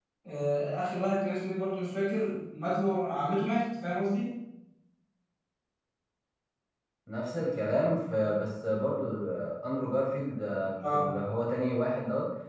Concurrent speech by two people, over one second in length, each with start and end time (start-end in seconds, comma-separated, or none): none